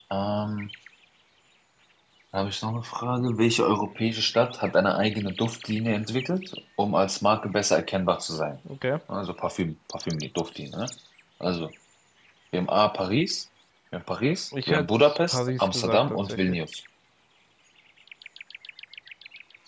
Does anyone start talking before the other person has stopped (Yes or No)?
Yes